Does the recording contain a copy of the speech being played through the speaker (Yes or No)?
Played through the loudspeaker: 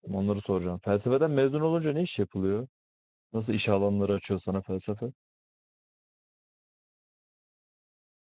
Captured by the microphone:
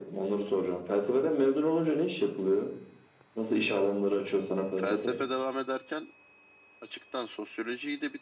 Yes